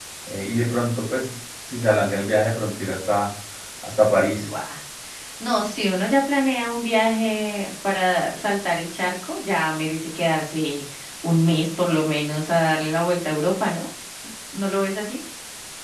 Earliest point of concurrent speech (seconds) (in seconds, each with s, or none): none